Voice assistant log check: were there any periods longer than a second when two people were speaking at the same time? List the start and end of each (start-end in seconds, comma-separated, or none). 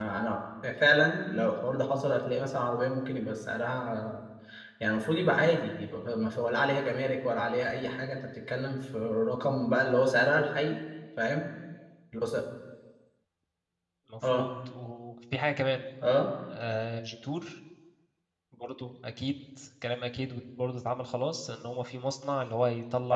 none